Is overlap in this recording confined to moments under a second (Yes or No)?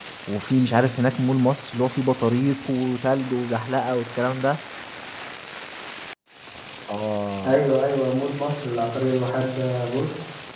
Yes